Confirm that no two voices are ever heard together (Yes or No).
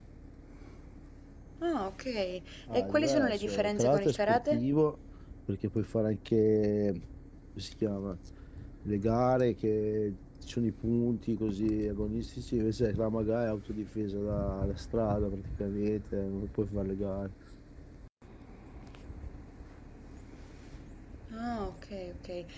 No